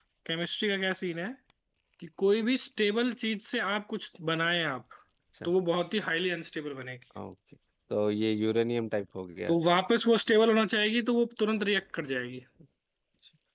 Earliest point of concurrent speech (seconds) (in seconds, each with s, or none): none